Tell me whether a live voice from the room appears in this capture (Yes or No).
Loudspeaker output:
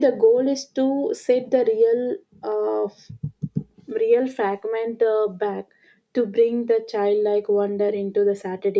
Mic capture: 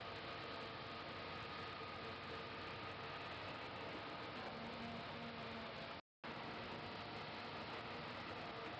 No